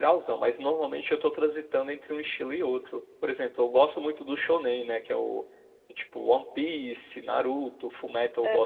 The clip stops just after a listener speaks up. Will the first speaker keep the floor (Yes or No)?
Yes